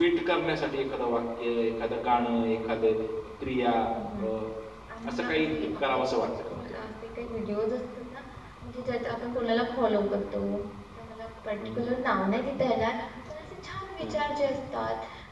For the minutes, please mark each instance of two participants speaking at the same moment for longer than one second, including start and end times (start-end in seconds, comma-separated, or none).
5.1-6.8